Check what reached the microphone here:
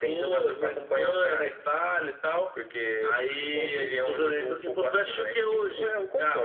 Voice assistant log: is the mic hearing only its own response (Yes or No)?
Yes